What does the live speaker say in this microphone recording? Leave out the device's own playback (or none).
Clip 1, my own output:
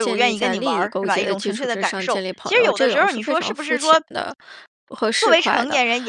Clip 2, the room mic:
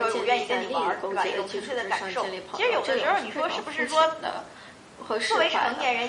none